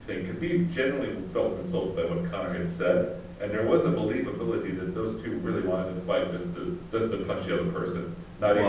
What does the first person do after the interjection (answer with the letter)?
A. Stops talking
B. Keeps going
A